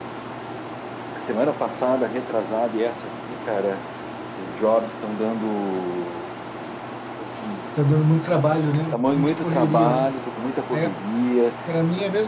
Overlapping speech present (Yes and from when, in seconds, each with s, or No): Yes, from 8.9 s